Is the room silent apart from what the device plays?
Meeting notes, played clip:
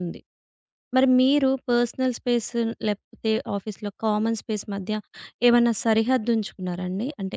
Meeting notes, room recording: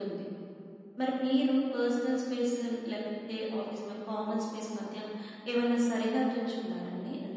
Yes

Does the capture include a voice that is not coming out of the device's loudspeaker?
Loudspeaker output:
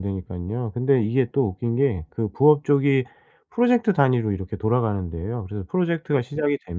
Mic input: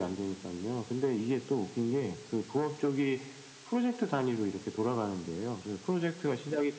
No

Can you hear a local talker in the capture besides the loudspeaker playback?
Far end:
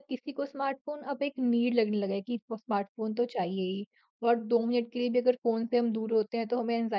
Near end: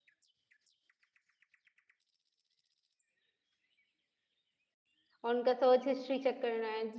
Yes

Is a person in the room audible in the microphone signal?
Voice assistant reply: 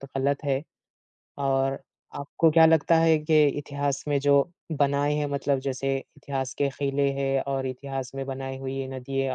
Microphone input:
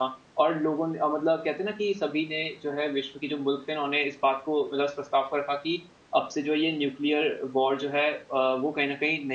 Yes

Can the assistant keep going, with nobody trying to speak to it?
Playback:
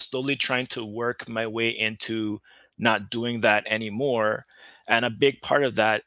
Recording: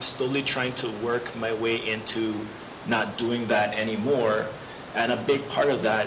Yes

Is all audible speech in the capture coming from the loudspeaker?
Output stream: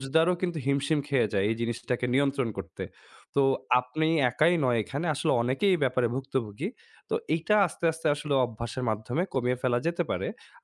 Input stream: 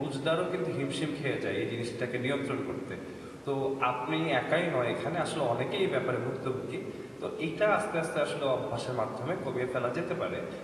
Yes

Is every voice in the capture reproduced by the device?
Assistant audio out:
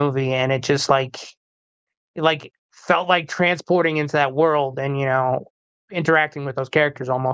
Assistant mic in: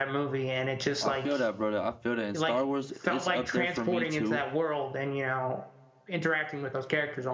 No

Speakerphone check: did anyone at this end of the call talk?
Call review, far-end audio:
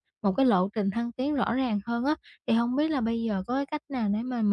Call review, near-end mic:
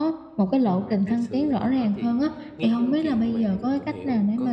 Yes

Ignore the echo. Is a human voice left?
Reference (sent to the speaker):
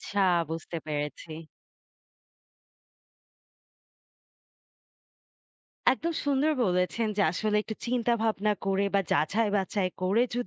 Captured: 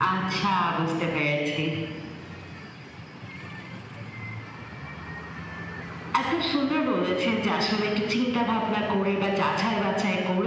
No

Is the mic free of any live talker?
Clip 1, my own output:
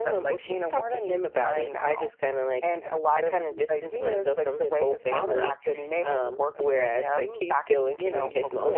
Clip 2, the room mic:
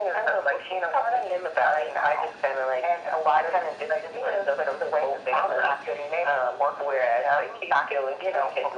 Yes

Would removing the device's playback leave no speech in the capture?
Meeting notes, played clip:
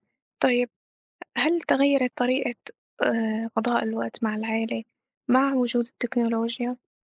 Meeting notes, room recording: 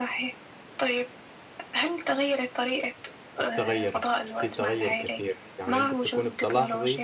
No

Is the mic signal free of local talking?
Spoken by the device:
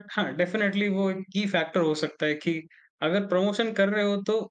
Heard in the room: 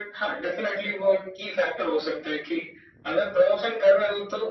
Yes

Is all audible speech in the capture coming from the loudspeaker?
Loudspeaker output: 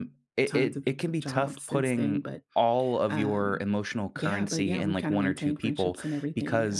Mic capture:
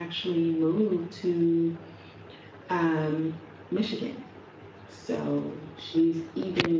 No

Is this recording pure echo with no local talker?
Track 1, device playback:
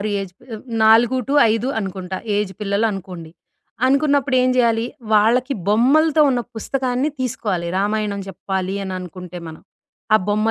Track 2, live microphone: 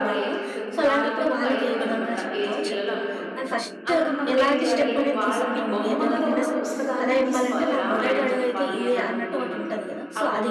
No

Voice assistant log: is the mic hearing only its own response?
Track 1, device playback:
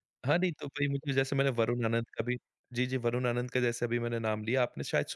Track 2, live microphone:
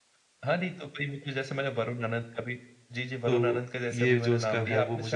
No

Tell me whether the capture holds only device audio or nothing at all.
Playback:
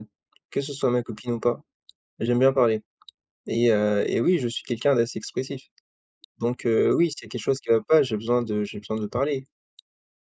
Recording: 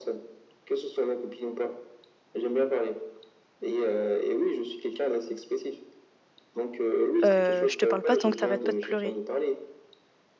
No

